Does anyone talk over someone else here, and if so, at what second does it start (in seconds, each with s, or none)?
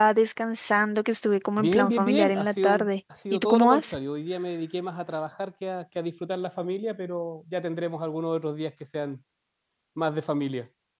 1.6 s